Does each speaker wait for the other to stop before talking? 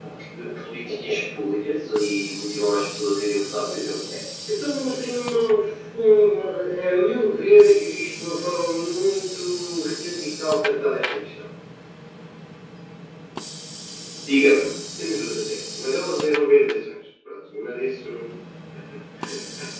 Yes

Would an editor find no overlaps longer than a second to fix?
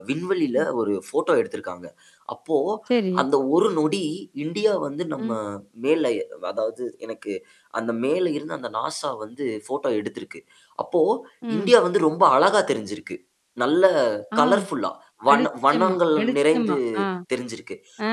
No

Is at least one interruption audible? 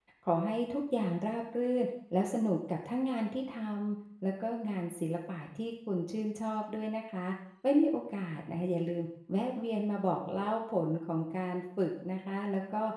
No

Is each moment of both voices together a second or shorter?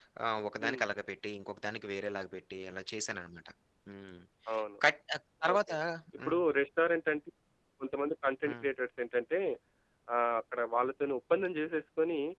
Yes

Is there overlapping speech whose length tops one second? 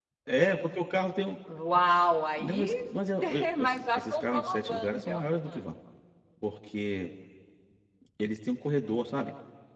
Yes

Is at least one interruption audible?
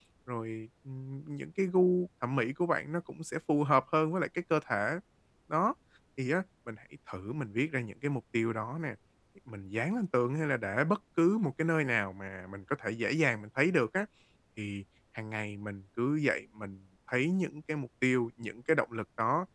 No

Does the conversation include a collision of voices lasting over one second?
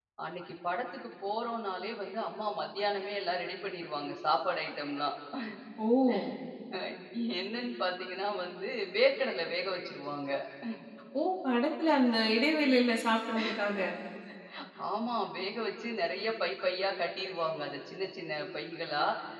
No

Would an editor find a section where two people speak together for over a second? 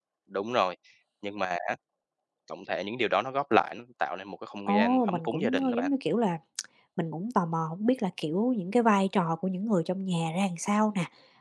Yes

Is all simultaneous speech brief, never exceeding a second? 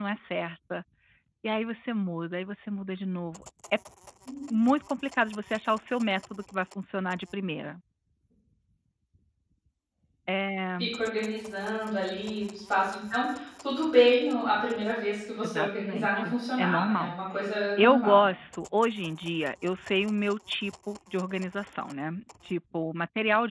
No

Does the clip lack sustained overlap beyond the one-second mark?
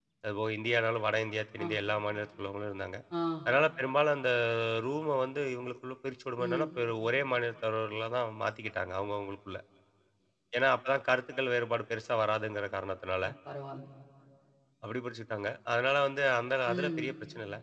Yes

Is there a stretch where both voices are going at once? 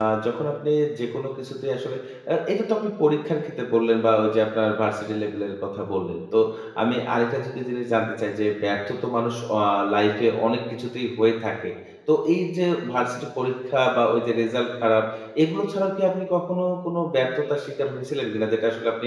No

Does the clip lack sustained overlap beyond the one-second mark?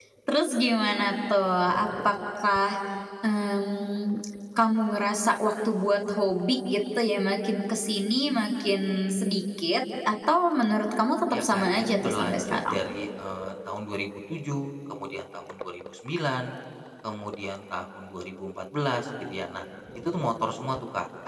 No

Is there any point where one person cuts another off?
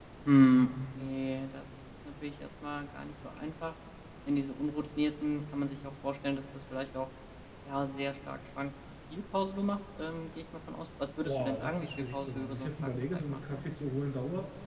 Yes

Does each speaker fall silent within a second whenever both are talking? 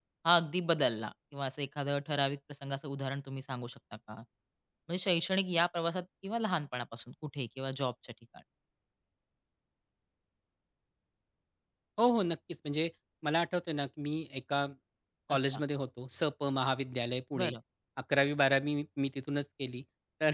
Yes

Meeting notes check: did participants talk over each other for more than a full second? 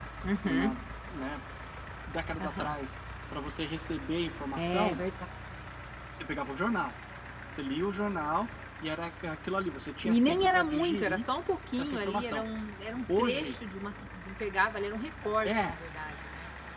Yes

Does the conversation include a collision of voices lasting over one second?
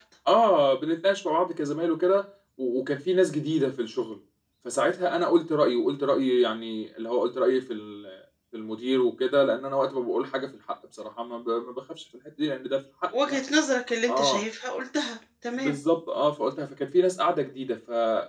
No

